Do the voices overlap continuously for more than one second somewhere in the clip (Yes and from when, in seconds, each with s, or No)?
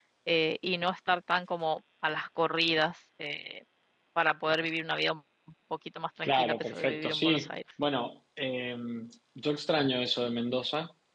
Yes, from 6.2 s